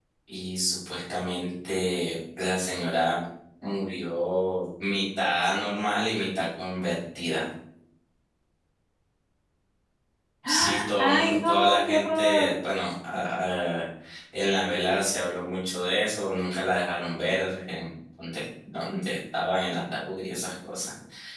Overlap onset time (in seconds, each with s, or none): 10.5 s